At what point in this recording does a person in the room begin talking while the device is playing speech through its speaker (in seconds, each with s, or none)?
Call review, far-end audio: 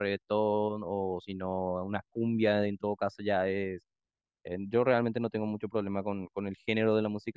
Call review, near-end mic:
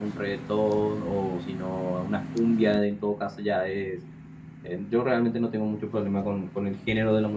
none